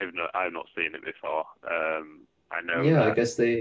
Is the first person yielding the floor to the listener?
Yes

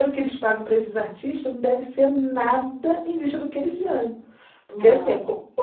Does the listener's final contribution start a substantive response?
No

